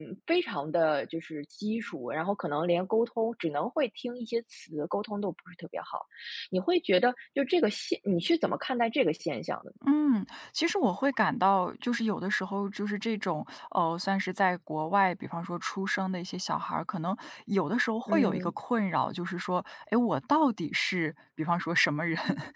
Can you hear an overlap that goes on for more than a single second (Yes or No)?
No